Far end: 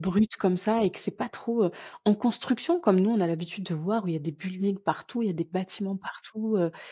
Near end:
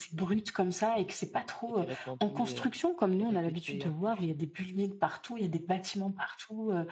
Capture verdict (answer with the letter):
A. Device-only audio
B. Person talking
B